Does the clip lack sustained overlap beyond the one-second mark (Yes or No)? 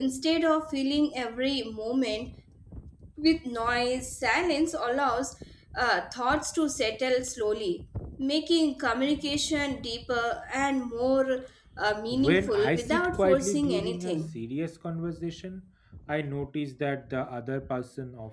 No